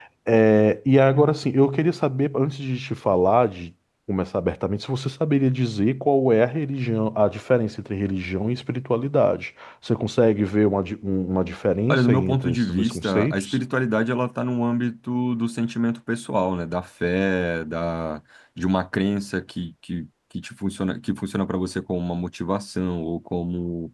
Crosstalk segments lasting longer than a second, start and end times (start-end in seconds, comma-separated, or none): 11.9-13.6